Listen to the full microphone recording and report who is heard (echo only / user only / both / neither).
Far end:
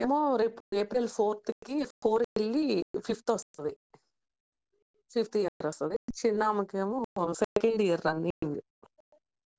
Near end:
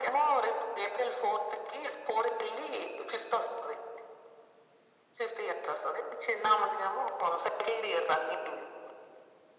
echo only